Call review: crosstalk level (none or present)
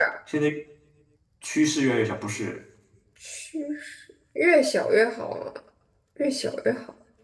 none